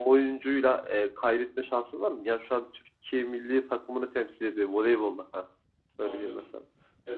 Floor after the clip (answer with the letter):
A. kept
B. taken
B